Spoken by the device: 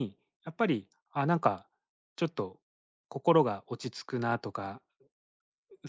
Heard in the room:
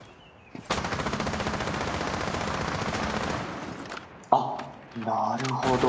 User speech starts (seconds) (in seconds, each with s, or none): 4.3 s